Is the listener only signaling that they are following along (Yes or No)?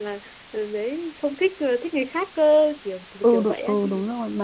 No